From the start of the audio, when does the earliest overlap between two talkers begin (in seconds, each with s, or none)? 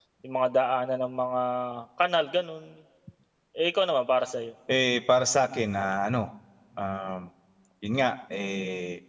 none